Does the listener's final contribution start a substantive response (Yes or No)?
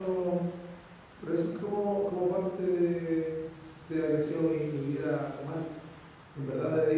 No